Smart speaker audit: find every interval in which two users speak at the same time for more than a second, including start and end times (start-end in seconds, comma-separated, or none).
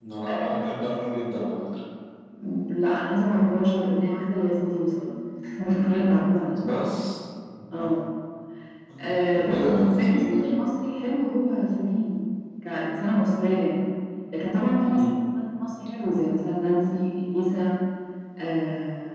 9.3-10.6